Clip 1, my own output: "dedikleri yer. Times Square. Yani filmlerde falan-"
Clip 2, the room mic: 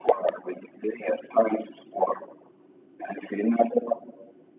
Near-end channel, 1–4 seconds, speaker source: echo only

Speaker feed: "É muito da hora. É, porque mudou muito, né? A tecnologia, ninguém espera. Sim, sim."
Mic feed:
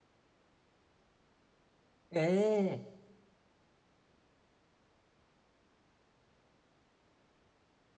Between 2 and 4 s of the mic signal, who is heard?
user only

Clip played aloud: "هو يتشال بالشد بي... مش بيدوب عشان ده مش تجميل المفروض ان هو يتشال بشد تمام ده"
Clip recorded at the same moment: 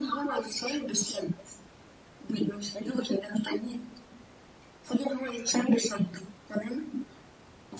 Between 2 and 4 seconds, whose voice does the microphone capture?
echo only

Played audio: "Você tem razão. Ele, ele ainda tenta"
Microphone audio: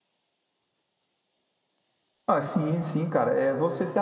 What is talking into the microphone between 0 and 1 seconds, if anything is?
neither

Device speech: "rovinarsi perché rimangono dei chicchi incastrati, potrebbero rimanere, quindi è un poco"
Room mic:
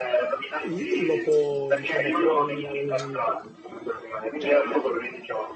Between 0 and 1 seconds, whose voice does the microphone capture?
both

